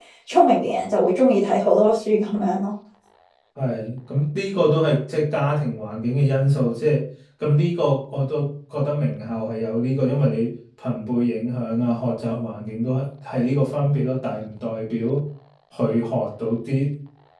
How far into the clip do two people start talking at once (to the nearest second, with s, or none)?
none